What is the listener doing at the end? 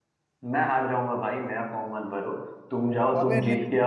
taking over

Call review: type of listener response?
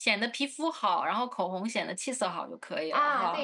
taking over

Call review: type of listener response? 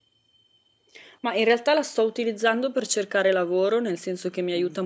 listening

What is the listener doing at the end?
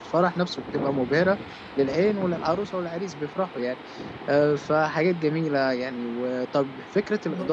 listening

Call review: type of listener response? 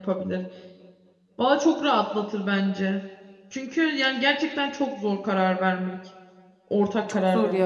taking over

